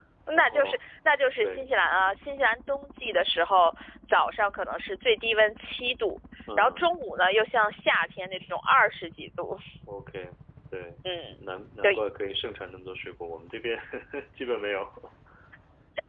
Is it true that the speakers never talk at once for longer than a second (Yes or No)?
Yes